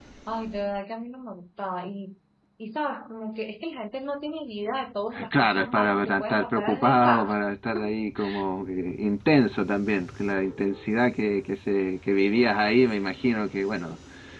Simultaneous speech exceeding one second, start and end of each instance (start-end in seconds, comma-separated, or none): 5.4-7.3